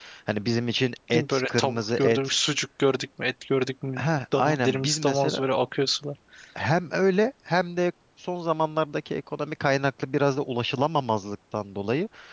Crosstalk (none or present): present